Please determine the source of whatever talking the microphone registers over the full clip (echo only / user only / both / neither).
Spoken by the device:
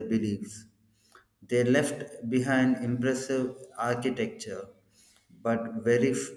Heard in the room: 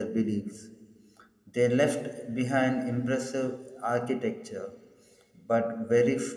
echo only